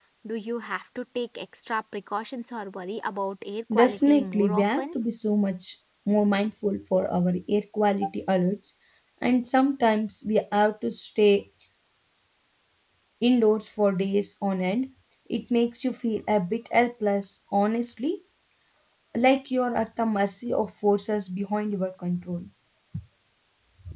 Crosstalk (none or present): present